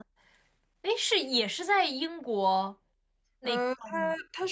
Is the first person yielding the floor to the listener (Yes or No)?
Yes